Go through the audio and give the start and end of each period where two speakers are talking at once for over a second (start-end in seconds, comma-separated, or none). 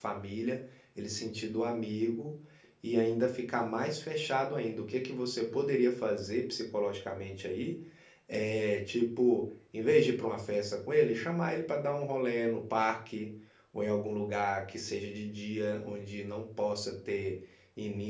none